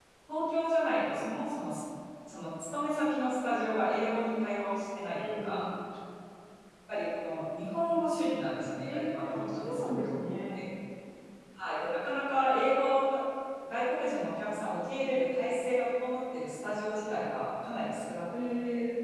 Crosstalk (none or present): present